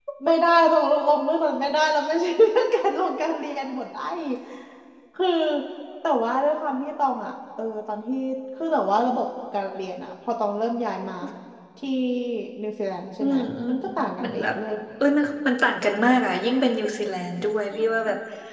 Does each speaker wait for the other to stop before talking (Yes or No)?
No